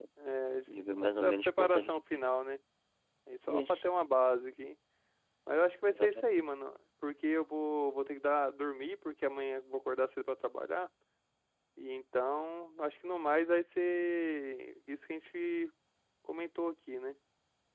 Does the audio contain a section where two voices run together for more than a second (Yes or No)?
Yes